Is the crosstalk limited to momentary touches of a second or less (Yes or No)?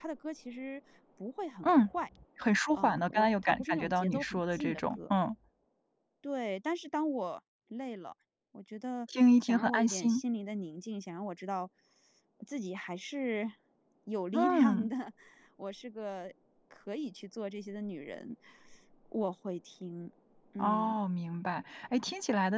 No